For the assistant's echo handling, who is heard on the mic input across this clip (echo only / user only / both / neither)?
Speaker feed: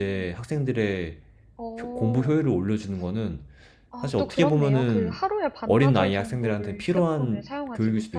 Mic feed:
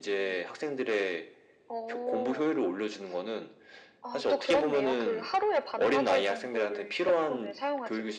echo only